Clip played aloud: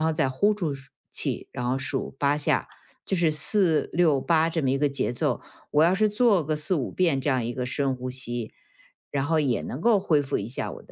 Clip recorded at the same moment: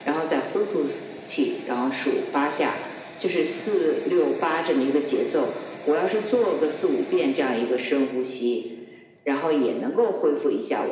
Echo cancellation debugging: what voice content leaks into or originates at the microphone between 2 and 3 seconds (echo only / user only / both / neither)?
echo only